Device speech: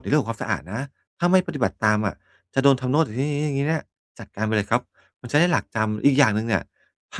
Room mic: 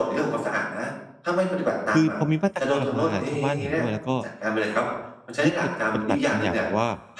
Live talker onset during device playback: 2 s

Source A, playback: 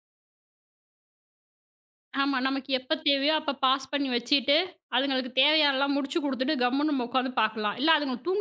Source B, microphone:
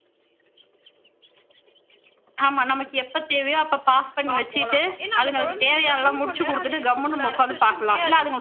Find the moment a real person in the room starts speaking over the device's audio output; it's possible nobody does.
4 s

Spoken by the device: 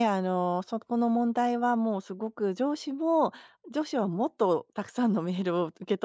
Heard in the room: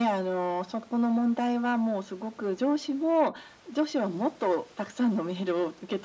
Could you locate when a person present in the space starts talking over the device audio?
none

